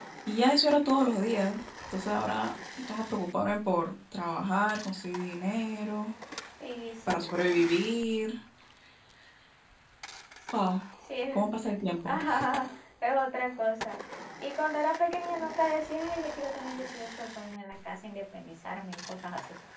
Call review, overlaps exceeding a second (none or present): none